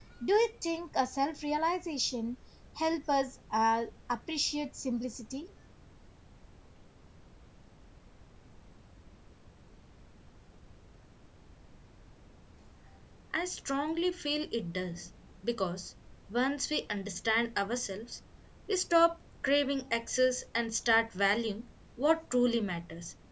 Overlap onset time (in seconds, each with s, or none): none